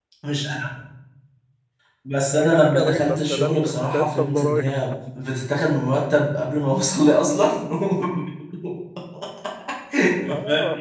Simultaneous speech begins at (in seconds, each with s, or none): 2.3 s